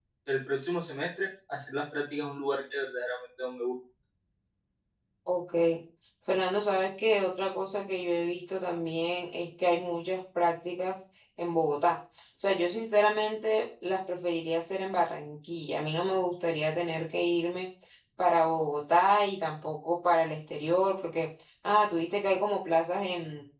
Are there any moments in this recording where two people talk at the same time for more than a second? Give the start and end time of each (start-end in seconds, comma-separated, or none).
none